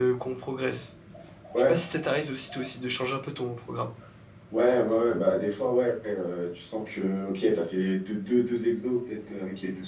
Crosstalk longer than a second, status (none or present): none